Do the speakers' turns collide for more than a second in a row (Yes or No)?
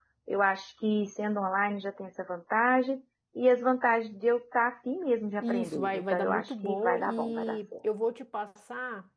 Yes